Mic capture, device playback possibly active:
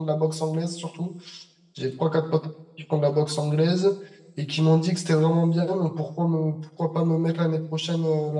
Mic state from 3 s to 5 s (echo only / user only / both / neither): echo only